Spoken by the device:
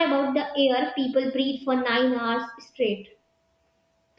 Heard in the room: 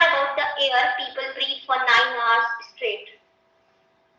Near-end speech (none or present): none